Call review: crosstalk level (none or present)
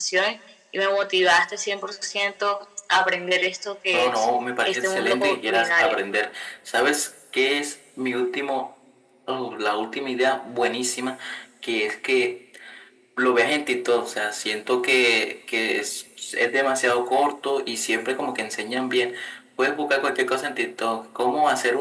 present